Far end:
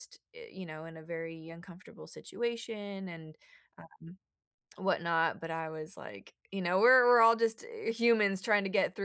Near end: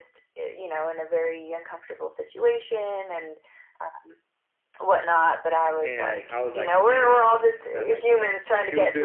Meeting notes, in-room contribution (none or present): present